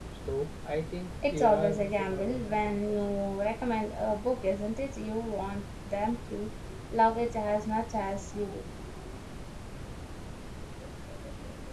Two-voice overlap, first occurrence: 1.2 s

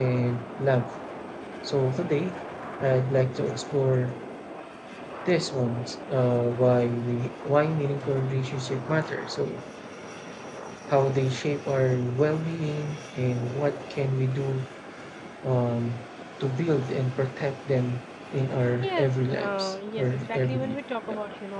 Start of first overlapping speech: 18.8 s

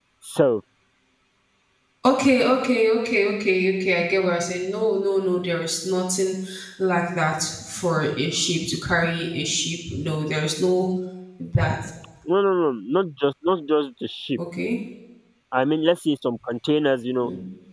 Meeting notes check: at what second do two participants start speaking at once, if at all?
none

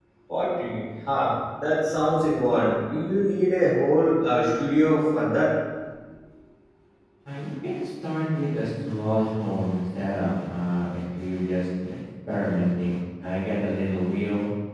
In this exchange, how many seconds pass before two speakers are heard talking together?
none

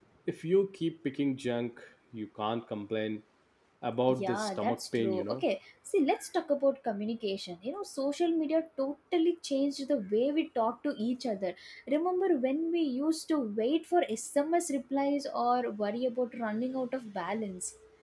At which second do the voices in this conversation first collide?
4.2 s

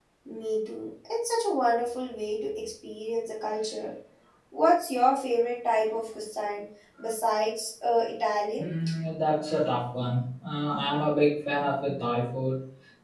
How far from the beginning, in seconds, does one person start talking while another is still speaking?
none

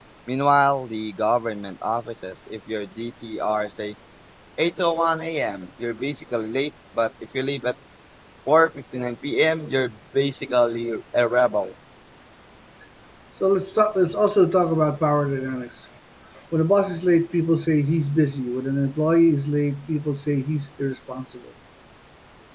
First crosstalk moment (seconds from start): none

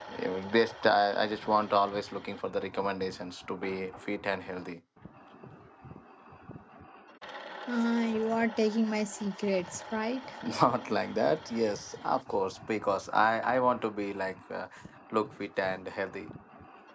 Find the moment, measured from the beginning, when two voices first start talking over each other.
none

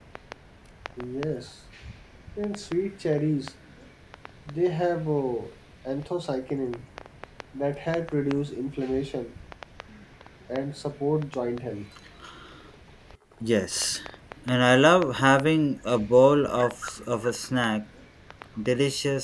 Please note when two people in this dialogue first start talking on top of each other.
none

